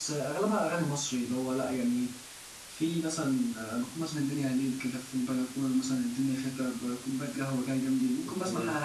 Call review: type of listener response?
listening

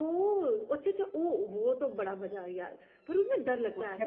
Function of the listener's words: taking over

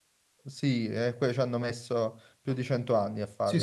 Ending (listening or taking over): taking over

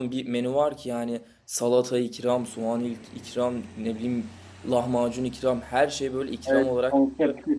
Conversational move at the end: taking over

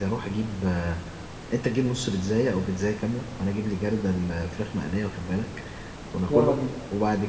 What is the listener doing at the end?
listening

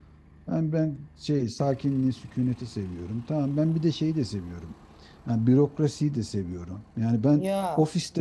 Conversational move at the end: listening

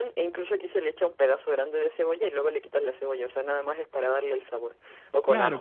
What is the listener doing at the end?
taking over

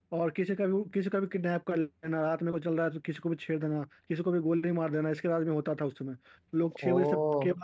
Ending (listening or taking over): listening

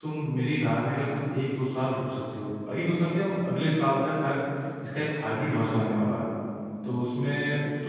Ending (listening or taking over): listening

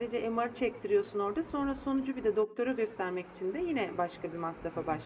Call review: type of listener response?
taking over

